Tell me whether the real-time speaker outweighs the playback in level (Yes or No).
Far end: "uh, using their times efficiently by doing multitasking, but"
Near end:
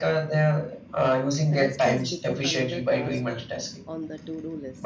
No